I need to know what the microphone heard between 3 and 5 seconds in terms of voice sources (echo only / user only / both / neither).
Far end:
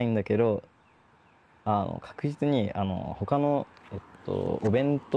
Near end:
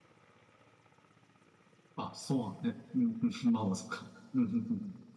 user only